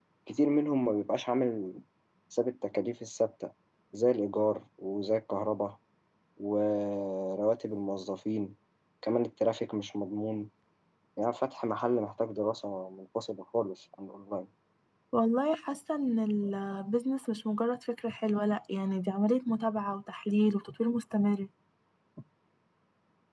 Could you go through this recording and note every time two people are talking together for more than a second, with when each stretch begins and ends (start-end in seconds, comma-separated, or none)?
none